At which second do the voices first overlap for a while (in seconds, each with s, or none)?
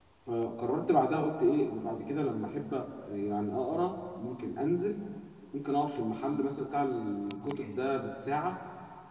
none